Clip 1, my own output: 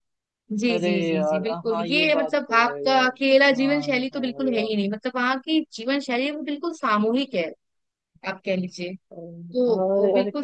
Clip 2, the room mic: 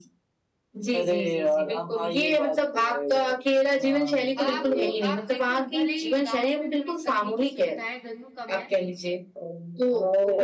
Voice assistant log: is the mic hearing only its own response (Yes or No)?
No